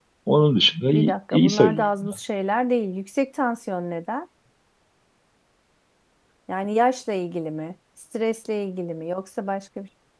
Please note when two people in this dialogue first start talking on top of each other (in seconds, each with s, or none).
0.9 s